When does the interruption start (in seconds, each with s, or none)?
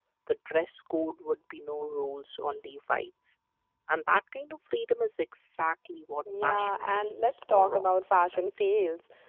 6.2 s